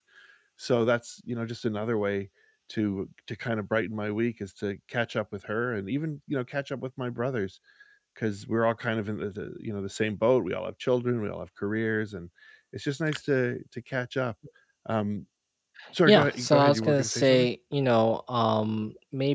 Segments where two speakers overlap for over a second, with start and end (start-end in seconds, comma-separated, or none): 16.1-17.5